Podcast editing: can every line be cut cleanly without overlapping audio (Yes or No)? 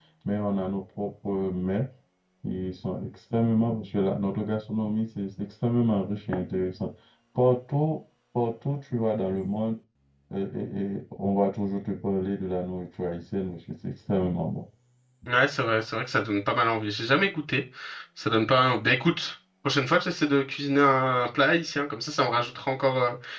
Yes